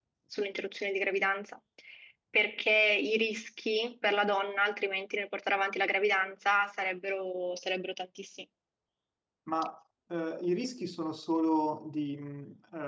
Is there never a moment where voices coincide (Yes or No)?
Yes